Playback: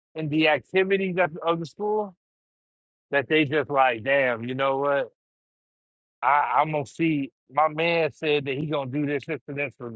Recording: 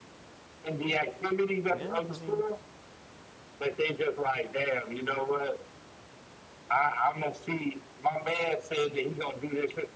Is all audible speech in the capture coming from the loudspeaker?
No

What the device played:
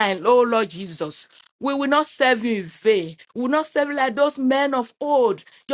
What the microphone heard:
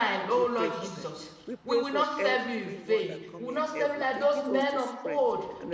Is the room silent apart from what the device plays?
No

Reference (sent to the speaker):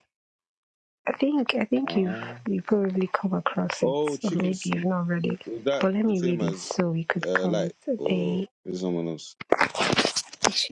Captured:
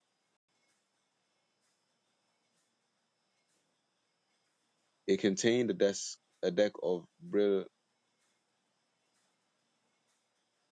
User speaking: Yes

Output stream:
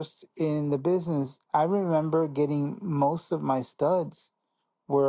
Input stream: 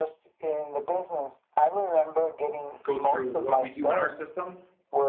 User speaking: Yes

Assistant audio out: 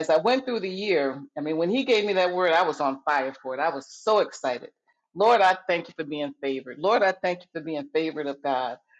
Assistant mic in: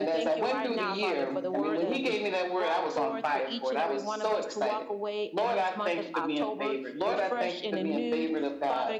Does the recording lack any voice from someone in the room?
No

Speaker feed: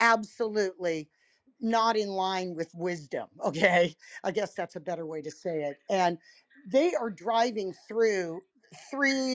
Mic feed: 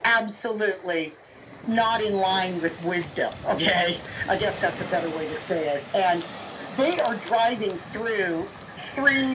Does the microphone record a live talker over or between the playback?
No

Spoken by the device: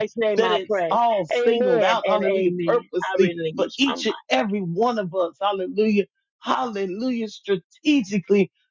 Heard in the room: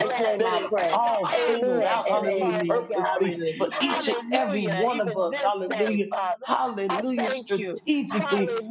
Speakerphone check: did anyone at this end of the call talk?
Yes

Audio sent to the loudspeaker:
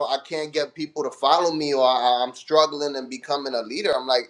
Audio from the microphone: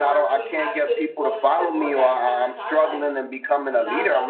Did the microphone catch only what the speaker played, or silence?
No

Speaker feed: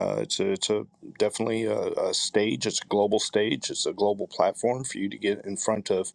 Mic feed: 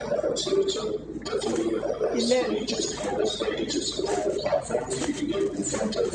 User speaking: Yes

